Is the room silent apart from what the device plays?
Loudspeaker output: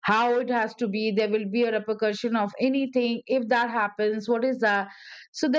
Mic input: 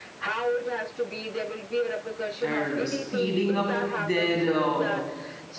No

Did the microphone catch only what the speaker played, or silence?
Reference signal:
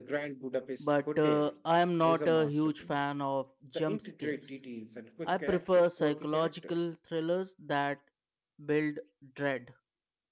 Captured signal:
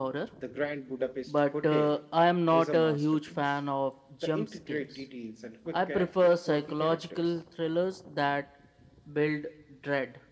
Yes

